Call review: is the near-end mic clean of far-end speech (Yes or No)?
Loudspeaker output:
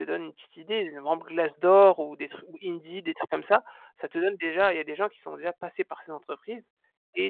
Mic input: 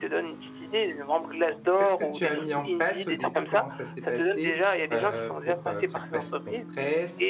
No